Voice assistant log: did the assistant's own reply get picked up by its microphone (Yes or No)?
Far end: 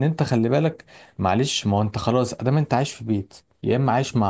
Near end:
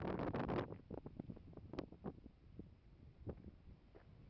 No